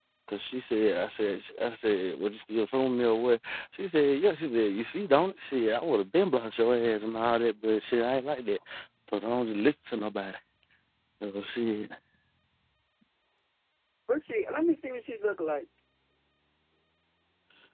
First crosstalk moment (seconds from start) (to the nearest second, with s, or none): none